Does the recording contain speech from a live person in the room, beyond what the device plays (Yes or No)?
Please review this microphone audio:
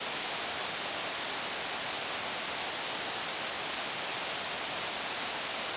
No